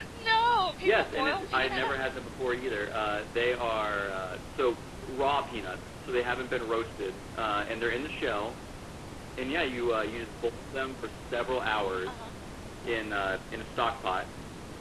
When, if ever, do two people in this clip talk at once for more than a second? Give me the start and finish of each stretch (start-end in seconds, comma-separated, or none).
0.8-2.2